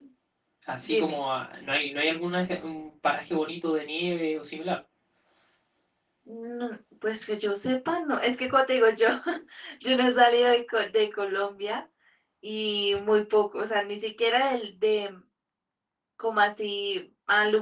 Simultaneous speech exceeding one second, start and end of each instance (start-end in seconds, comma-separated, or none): none